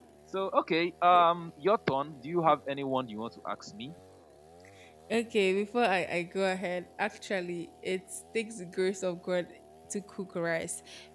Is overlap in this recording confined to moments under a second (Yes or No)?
Yes